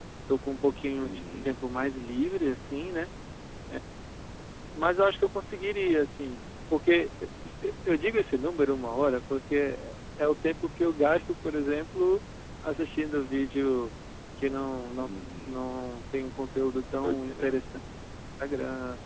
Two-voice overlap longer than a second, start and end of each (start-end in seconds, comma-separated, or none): none